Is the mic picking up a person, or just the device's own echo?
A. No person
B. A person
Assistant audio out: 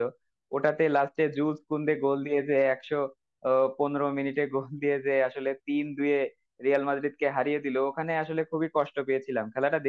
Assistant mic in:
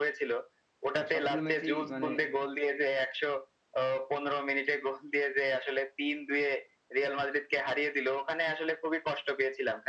B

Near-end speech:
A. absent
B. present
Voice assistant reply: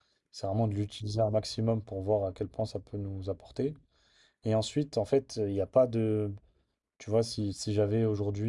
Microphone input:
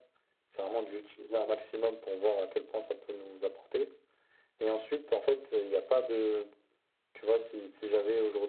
A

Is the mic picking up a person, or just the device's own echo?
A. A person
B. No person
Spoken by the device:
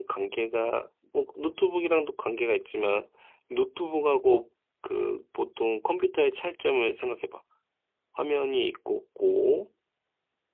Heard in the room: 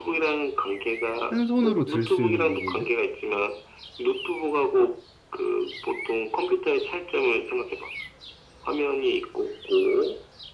A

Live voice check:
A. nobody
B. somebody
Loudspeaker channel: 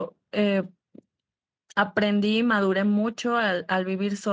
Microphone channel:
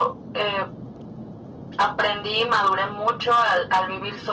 A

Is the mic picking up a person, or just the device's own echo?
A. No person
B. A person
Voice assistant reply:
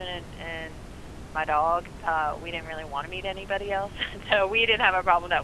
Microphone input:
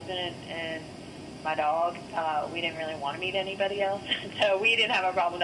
A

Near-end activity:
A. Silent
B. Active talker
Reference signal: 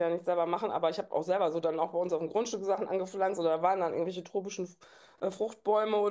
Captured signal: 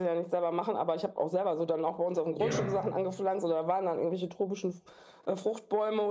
B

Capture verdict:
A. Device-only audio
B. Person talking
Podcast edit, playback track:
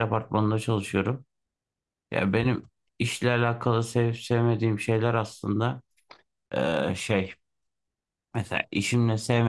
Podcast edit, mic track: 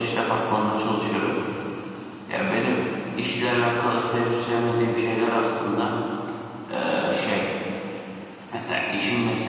A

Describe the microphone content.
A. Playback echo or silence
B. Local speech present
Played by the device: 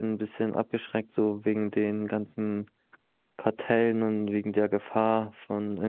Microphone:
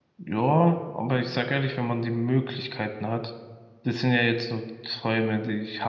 B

